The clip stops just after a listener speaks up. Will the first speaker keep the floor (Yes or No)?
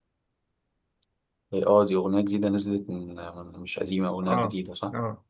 No